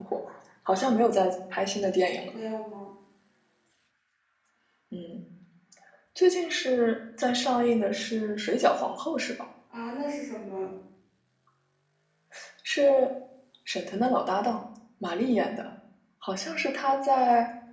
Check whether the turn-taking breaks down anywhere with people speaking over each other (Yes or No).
No